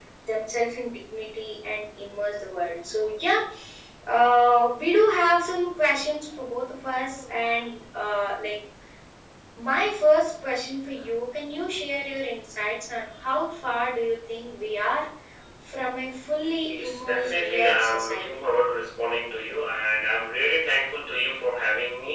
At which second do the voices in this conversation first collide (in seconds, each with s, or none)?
16.7 s